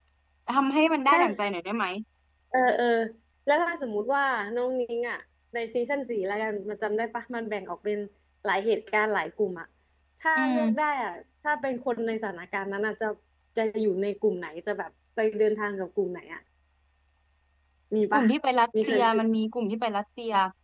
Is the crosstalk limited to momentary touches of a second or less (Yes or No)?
Yes